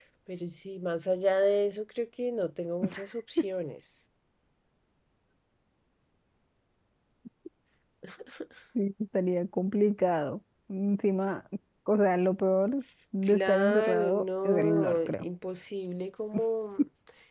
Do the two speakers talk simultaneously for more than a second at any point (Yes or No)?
Yes